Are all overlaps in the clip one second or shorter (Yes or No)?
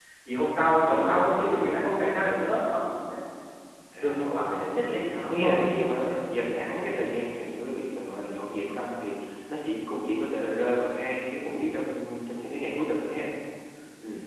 No